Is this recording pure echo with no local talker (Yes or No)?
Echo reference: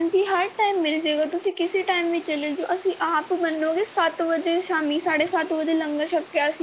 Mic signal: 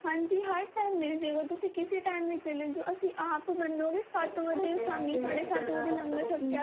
No